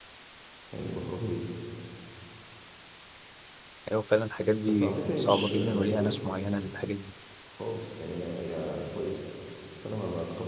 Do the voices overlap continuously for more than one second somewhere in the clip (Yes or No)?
Yes